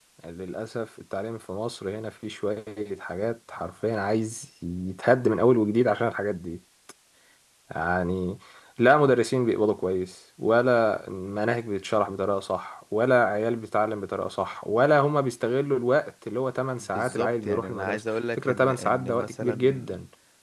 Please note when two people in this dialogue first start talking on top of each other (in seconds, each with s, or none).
16.8 s